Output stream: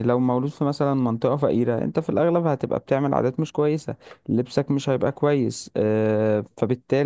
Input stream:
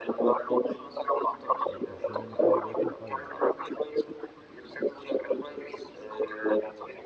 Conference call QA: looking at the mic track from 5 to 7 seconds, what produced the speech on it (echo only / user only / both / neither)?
echo only